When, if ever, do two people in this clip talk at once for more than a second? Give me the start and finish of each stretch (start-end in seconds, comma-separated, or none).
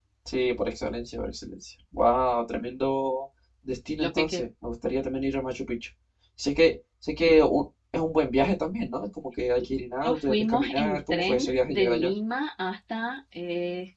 10.0-12.1